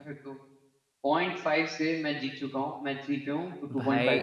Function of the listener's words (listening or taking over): taking over